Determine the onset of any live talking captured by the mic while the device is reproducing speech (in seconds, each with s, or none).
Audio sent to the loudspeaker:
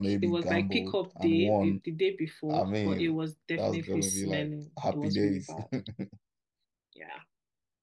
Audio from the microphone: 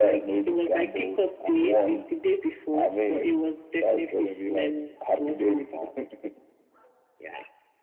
none